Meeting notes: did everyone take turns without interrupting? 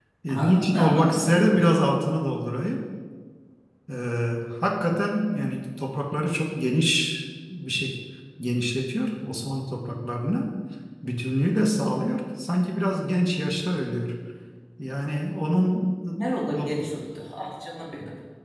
No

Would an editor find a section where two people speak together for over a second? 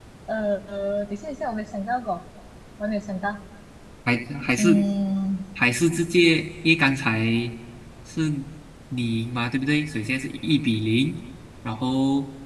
No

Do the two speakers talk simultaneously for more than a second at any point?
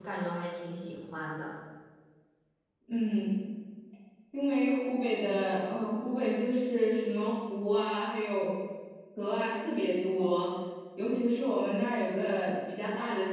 No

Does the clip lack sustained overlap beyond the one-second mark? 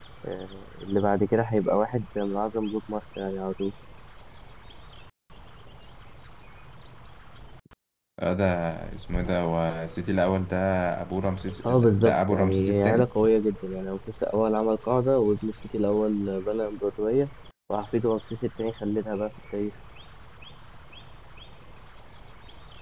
No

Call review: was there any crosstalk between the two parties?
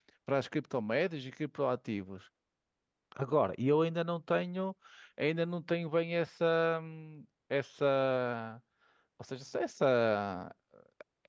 No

